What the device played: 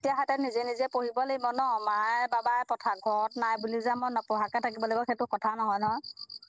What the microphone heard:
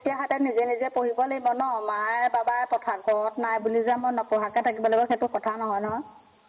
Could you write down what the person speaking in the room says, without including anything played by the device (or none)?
none